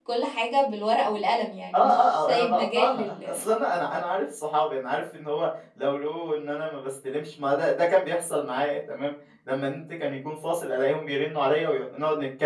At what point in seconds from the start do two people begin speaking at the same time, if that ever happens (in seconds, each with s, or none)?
1.7 s